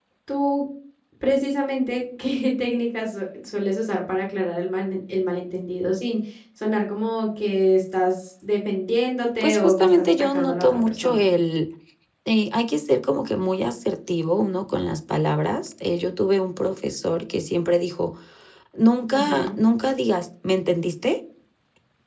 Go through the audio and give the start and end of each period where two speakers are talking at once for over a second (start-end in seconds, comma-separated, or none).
9.4-11.2